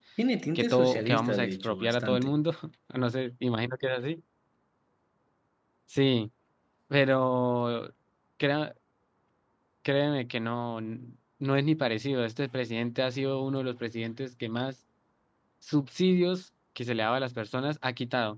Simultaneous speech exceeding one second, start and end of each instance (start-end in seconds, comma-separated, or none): 0.6-2.3